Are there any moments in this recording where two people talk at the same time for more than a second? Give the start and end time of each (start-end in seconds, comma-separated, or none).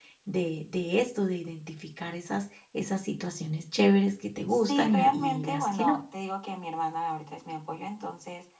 4.5-6.0